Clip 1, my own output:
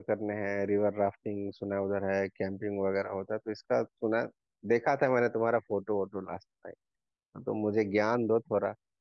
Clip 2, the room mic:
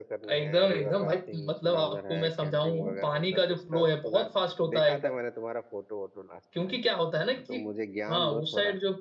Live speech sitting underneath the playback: No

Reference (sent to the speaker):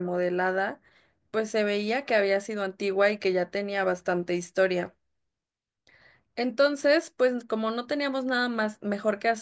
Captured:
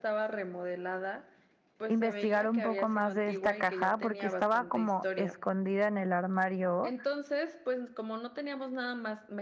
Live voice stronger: Yes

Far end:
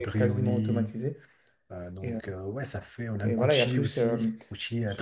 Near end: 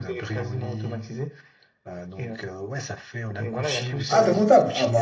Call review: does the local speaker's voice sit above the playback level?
Yes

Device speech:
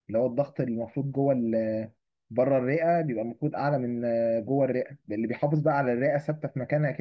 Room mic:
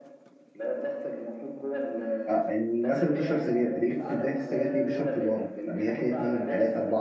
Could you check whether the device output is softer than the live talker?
Yes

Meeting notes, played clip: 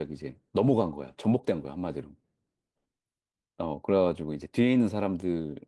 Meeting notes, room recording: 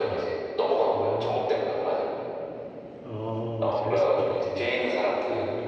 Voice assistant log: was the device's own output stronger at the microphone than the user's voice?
Yes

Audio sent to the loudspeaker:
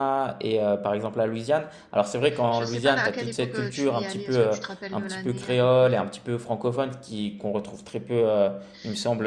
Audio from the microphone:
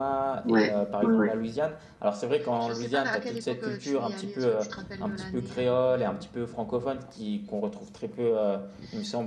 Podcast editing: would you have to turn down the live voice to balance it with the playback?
Yes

